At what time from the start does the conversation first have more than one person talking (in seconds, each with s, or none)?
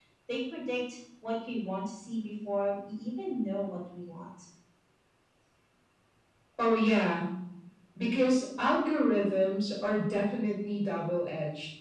none